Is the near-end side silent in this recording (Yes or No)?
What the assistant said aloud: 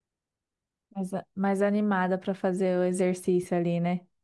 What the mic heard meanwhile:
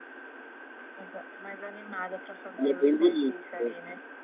No